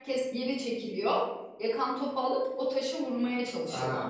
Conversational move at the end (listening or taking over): taking over